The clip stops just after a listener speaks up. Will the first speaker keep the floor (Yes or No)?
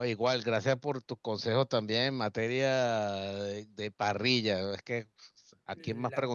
Yes